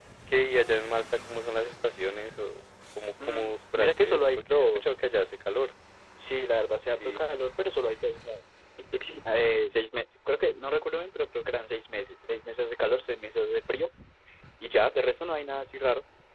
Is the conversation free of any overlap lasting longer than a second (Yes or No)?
No